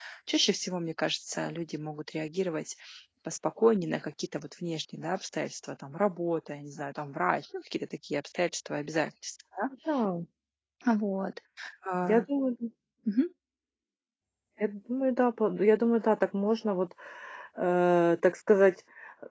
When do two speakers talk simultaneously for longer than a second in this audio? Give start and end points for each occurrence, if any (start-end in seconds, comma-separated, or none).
none